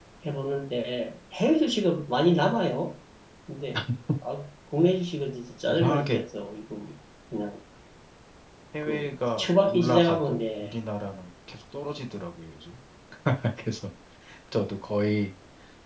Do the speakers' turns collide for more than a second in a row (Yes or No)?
Yes